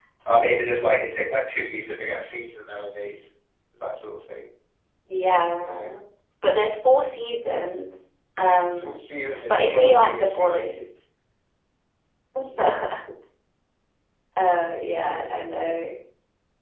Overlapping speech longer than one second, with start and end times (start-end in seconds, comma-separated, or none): 9.5-10.8